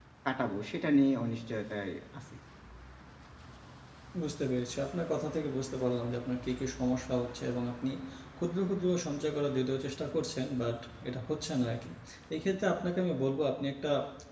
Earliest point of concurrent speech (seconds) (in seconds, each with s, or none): none